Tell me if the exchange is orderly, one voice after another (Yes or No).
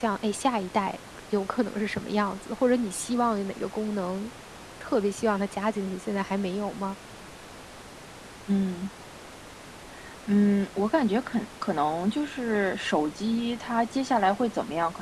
Yes